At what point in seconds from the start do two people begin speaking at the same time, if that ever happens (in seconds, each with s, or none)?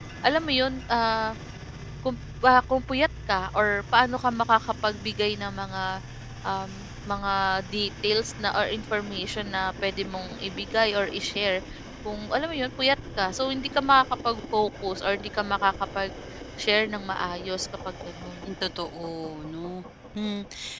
none